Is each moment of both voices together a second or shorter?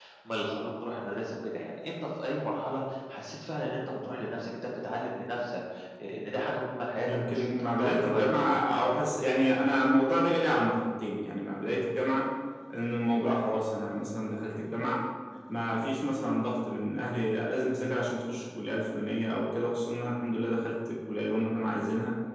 No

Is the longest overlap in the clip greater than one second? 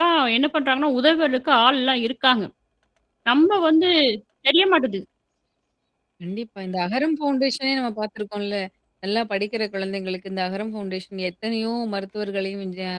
No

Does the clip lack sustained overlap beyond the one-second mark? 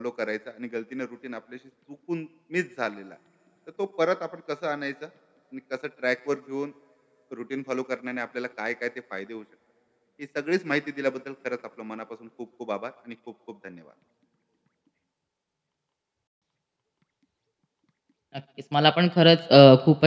Yes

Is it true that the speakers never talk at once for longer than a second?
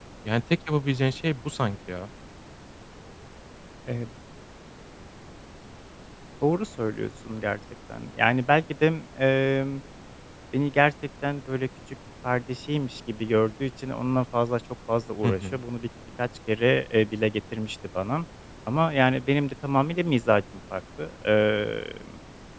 Yes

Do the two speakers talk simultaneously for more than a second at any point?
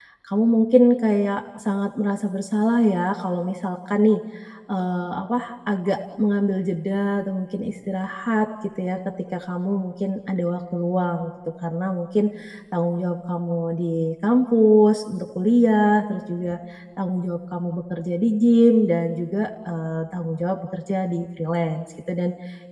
No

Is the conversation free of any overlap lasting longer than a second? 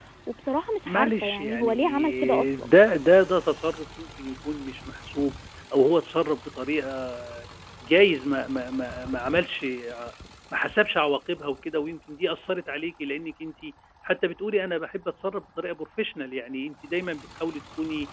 No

